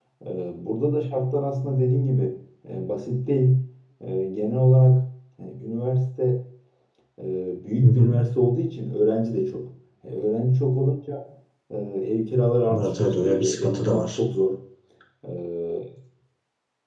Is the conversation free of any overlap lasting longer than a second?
No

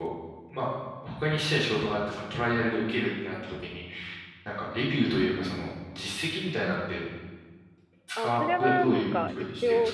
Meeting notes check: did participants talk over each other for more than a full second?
Yes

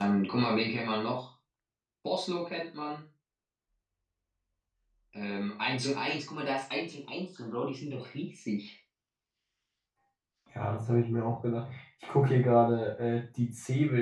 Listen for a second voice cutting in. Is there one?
No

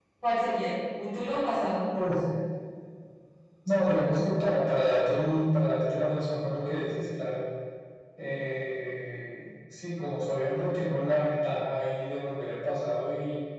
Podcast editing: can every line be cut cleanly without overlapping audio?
Yes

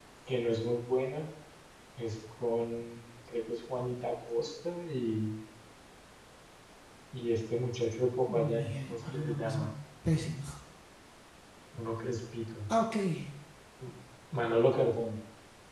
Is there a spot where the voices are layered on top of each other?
Yes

